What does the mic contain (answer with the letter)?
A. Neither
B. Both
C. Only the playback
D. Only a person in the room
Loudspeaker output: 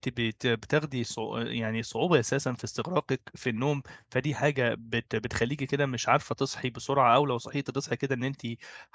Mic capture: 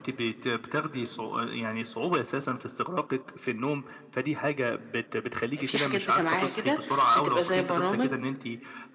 B